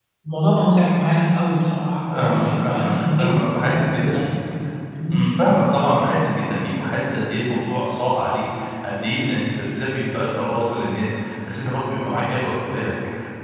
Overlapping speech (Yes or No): Yes